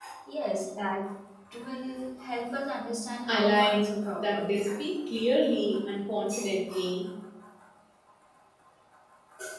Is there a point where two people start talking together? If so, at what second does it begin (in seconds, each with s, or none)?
3.3 s